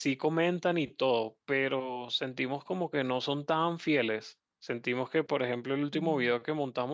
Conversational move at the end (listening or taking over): listening